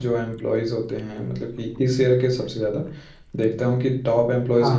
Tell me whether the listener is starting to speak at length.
No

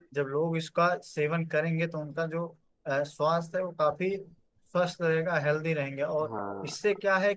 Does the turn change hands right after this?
No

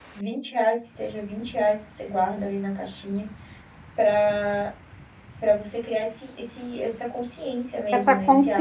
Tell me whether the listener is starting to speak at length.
Yes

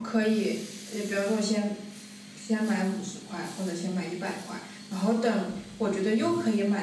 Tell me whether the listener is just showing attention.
Yes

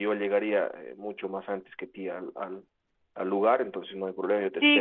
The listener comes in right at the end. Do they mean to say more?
Yes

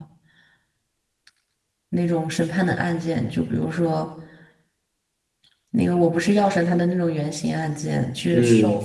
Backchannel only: Yes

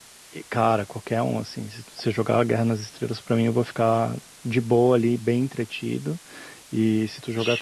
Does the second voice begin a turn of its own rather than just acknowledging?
No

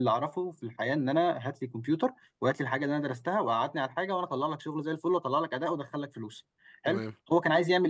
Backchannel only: Yes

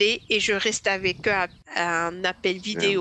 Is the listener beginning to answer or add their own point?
No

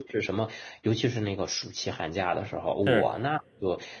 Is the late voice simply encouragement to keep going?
Yes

